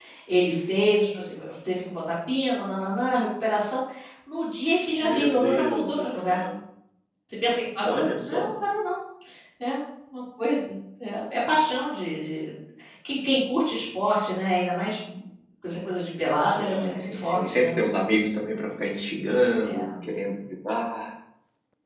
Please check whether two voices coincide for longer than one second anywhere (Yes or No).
Yes